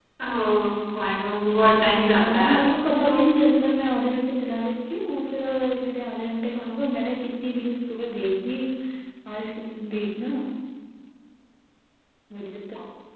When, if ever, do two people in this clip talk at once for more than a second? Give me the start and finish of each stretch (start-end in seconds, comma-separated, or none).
1.5-3.1